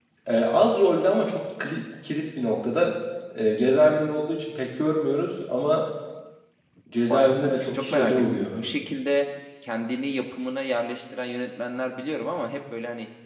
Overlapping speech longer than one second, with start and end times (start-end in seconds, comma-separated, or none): 7.1-8.5